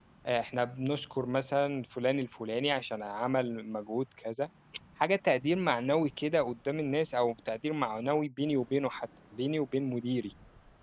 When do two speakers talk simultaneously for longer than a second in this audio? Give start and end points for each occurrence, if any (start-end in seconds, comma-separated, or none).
none